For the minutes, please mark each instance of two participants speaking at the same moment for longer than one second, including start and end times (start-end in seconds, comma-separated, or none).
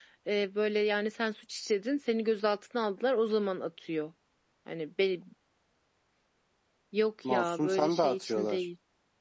7.3-8.6